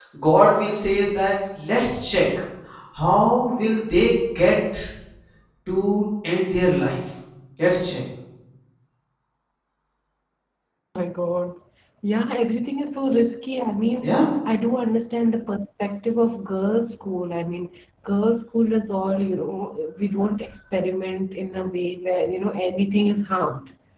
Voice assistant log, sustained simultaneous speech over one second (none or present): none